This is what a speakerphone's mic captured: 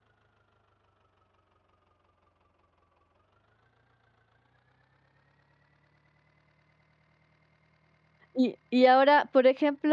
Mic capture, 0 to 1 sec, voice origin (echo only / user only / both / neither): neither